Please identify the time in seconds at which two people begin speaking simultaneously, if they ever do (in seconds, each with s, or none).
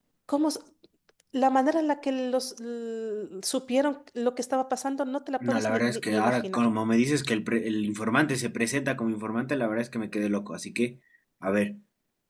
5.4 s